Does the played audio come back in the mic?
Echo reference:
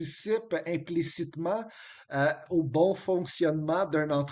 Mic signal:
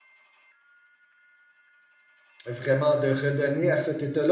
No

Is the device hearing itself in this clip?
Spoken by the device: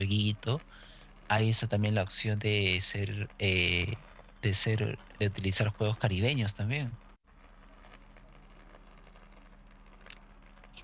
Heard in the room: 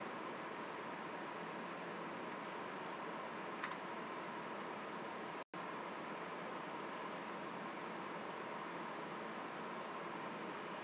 No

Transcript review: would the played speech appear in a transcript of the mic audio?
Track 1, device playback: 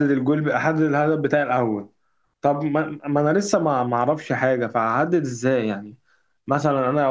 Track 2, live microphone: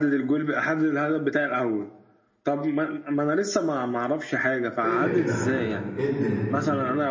Yes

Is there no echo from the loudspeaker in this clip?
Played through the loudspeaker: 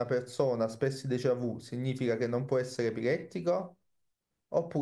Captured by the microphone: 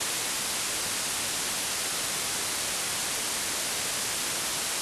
Yes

